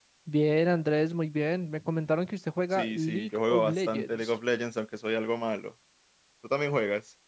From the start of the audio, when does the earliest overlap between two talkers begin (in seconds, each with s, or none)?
2.7 s